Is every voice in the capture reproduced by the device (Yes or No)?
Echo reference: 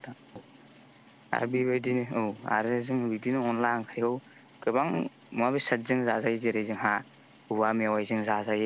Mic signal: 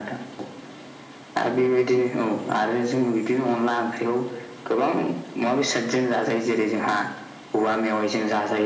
Yes